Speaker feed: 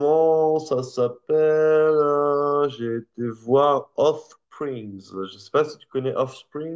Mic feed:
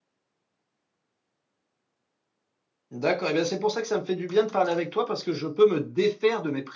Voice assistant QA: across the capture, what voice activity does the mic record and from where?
user only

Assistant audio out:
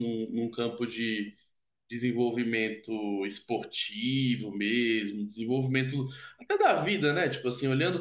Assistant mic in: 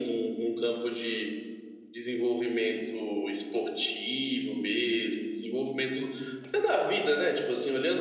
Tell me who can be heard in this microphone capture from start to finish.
echo only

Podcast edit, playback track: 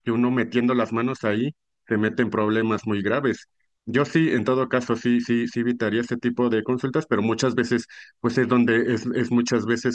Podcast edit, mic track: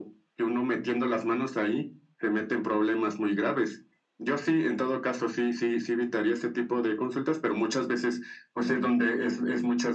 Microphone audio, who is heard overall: echo only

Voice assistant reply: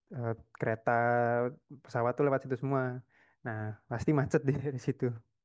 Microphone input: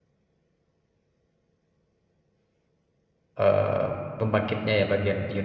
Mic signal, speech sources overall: user only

